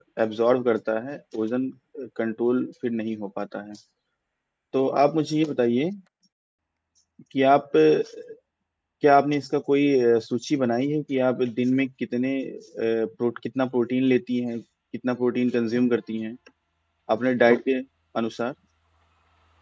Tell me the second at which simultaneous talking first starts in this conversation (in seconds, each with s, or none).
none